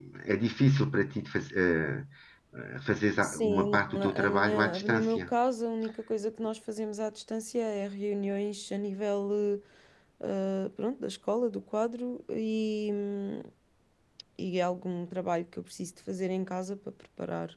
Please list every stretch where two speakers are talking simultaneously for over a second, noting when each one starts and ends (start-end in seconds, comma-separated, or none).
3.2-5.3